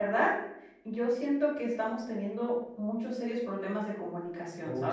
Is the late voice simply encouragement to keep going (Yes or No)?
No